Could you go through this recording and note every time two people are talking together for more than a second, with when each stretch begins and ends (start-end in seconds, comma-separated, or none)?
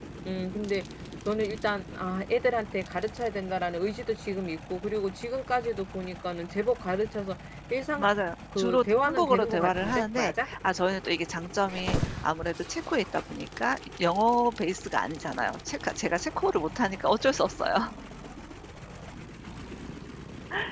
8.6-10.5